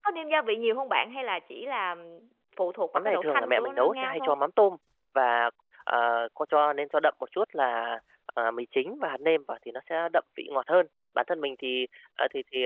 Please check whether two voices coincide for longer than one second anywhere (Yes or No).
Yes